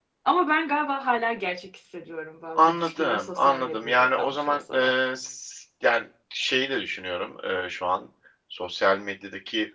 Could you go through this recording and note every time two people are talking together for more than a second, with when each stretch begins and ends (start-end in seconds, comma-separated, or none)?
2.6-4.9